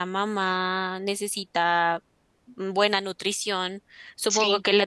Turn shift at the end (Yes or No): No